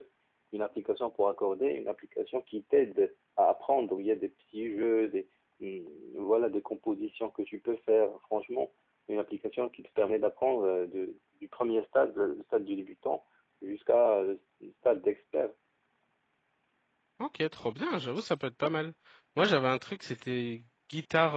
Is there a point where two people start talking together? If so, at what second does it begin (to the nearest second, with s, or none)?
none